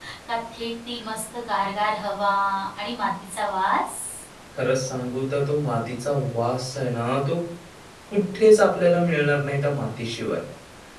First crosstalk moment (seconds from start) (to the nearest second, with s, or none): none